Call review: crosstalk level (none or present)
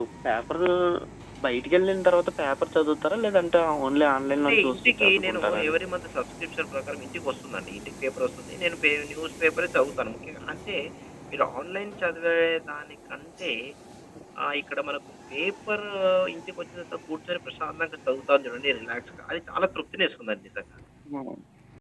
present